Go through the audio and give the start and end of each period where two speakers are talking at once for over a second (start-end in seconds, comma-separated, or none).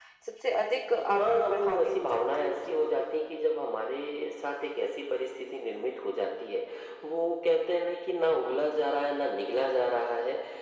1.1-3.1